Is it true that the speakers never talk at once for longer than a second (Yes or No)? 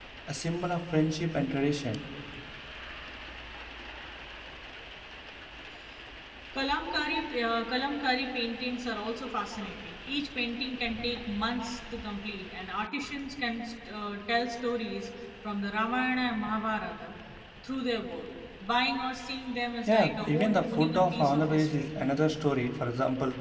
No